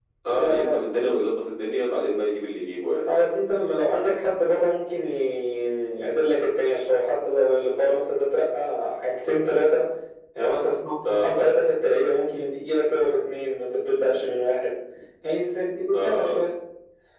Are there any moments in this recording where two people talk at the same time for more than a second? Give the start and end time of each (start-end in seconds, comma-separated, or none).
none